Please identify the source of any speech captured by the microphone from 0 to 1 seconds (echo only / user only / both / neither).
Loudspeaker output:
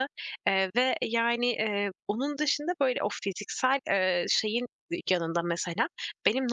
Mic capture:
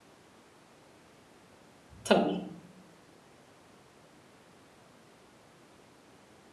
neither